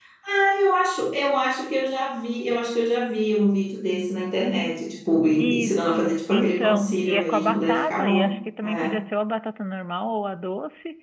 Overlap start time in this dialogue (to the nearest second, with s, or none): 5 s